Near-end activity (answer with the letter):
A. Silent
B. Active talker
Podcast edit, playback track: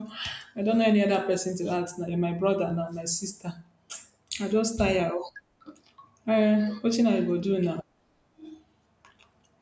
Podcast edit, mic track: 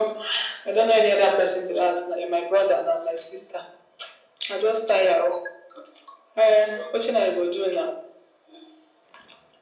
A